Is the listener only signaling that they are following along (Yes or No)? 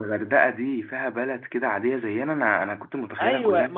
No